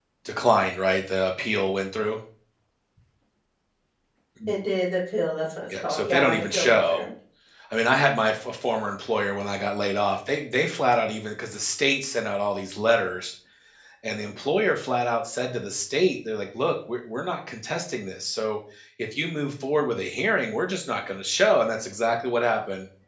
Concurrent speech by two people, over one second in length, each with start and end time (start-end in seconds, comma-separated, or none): 5.7-7.0